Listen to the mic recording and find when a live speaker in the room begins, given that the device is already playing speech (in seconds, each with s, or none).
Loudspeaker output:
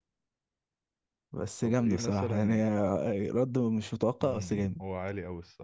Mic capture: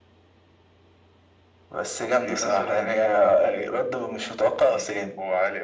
none